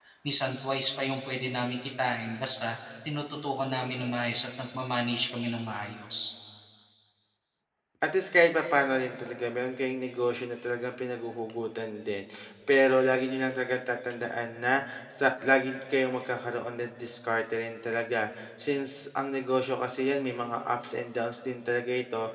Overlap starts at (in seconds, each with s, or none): none